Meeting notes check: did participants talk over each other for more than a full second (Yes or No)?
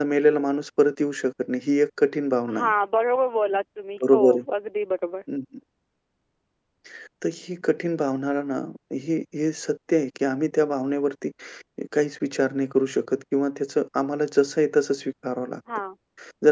No